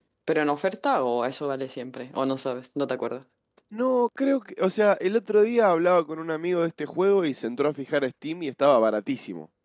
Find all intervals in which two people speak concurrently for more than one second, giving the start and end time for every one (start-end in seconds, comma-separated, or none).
none